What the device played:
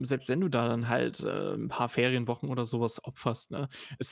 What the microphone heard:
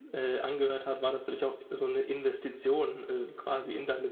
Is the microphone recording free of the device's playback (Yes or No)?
Yes